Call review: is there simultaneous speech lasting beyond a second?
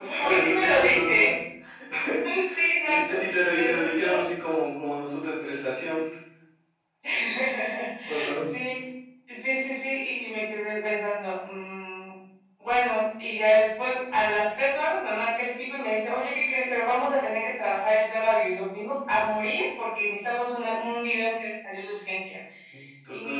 Yes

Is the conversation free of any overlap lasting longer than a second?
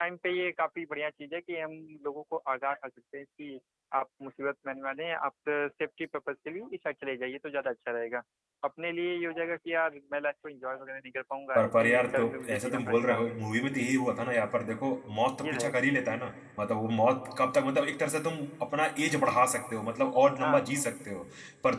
No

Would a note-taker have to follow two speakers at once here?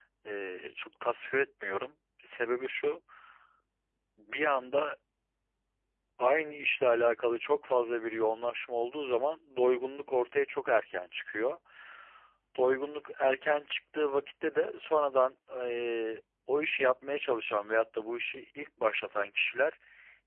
No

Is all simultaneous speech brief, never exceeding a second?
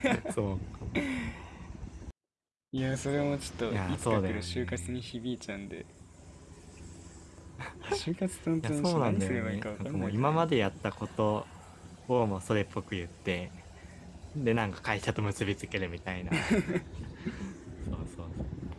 No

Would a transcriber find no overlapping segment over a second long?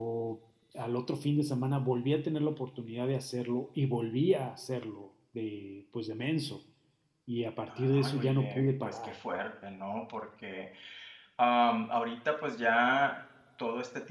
No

